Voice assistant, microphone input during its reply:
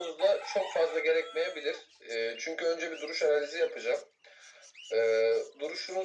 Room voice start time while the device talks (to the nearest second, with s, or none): none